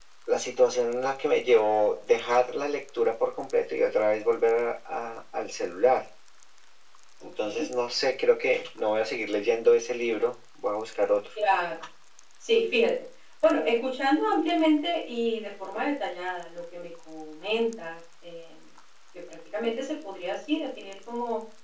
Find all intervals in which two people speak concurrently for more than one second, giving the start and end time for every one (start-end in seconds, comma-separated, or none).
none